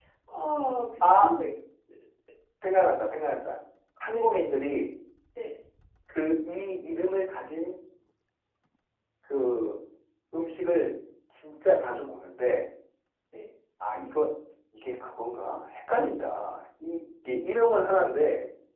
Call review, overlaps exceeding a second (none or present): none